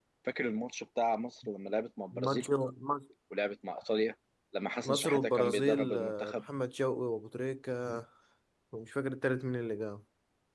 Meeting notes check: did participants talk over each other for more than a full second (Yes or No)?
Yes